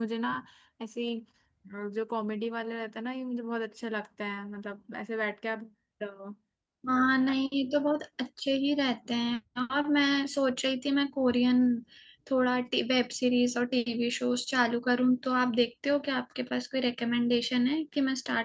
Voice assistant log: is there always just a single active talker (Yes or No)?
Yes